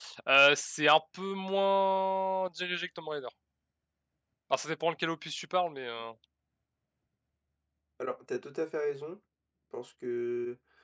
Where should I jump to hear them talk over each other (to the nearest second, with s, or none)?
none